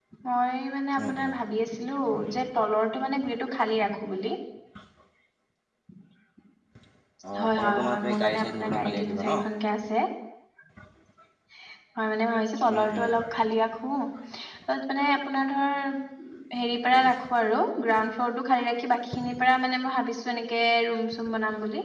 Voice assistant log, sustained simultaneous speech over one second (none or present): present